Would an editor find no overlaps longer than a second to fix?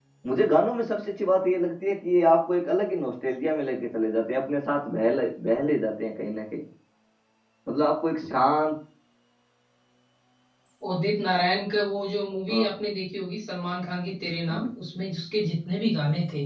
Yes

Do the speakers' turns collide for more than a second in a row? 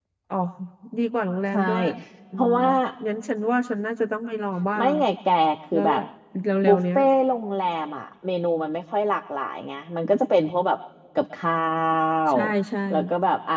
No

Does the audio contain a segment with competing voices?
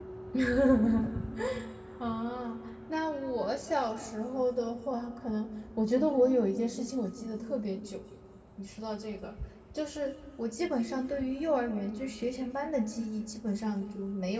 No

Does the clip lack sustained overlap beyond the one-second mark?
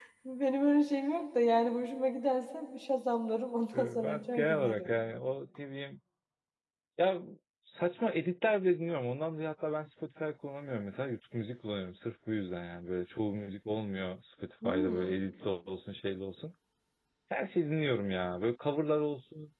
No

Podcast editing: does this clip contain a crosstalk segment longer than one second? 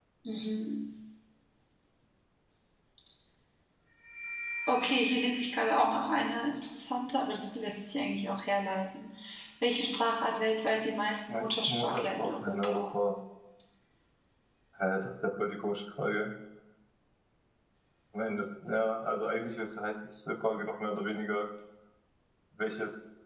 Yes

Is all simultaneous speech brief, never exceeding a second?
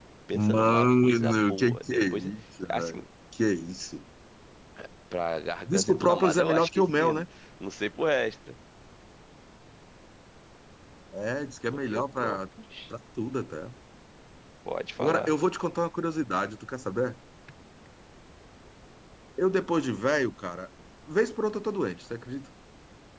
No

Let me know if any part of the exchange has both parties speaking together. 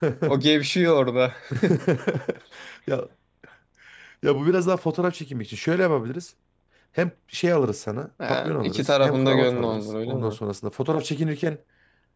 Yes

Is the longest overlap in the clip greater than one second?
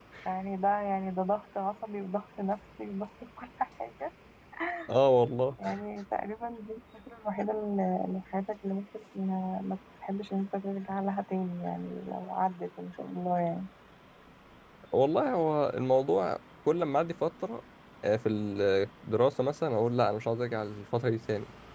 No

